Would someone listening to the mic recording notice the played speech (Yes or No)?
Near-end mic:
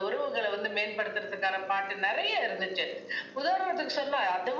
Yes